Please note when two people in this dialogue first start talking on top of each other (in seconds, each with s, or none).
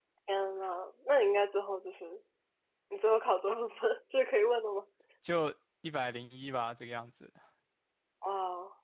none